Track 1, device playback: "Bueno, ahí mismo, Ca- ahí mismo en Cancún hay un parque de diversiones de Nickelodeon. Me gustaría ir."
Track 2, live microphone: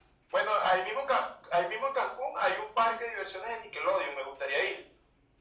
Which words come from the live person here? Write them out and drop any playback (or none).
none